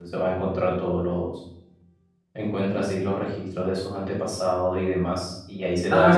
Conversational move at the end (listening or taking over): taking over